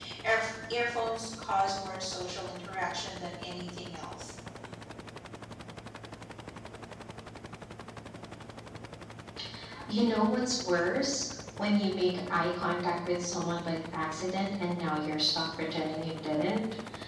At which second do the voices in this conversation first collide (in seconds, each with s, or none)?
none